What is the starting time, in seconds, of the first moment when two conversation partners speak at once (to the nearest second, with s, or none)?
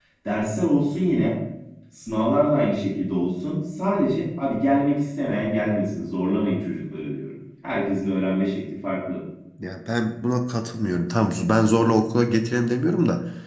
none